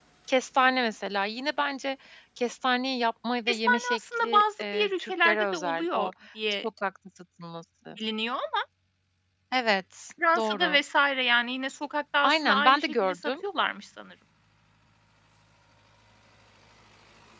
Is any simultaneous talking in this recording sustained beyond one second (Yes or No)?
Yes